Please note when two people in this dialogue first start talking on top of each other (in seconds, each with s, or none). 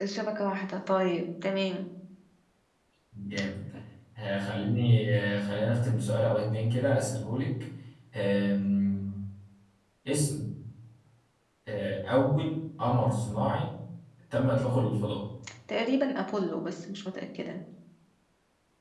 none